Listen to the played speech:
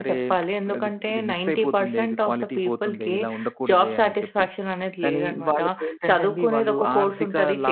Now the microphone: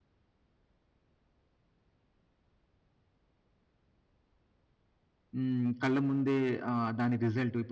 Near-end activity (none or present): present